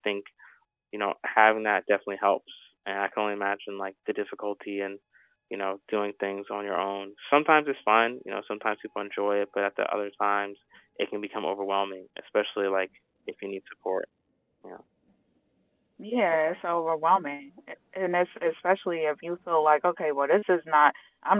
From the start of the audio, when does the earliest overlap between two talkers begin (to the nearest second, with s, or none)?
none